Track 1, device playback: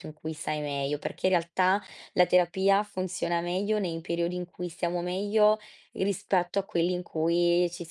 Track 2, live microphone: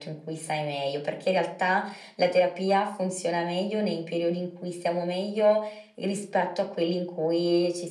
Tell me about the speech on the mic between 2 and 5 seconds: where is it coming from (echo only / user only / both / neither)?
echo only